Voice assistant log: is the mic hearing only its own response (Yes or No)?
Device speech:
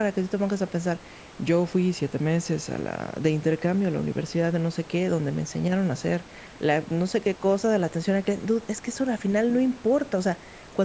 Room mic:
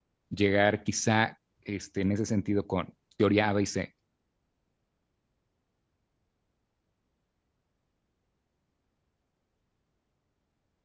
No